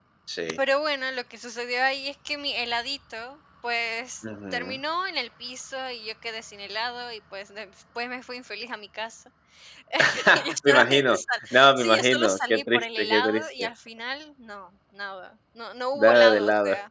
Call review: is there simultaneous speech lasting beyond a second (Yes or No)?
Yes